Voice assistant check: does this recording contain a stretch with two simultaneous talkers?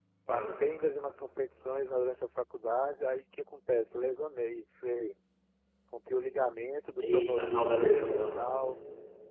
Yes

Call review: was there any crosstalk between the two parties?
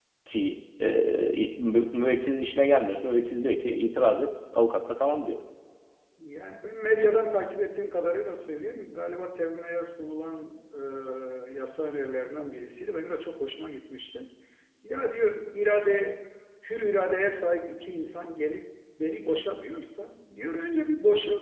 No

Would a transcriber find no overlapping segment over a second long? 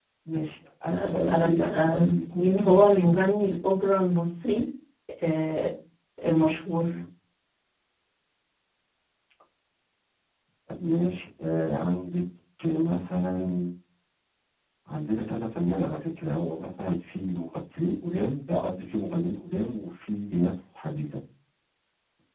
No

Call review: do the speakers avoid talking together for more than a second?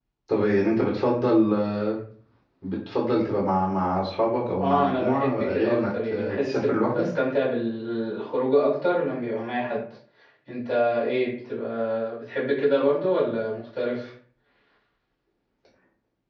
No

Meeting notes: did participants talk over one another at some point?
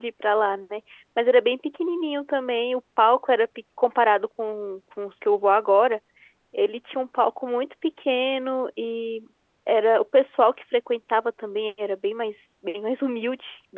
No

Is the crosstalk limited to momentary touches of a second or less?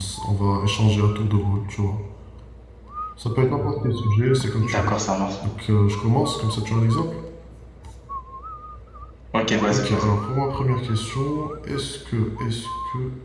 Yes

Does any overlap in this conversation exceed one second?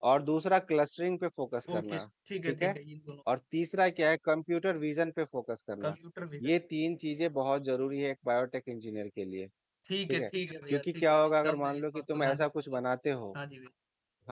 Yes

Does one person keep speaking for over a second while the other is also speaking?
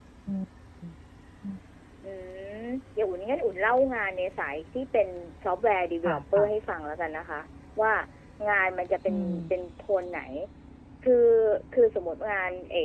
No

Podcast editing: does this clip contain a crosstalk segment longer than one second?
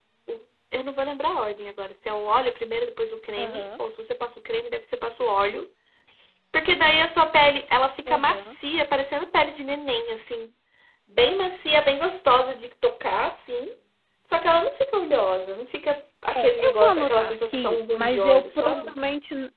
Yes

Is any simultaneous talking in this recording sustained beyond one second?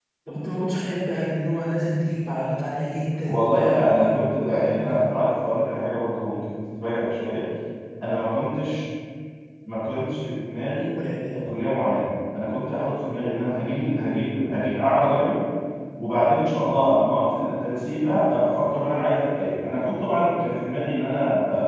Yes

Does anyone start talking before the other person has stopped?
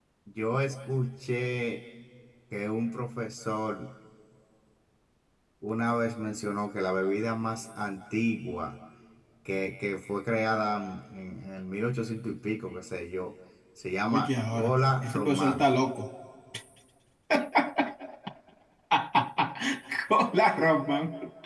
Yes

